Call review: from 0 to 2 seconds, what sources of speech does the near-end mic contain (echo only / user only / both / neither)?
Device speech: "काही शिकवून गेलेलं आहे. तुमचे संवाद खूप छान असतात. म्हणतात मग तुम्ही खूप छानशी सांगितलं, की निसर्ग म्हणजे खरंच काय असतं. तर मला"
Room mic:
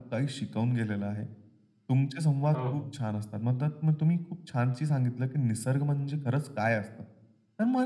echo only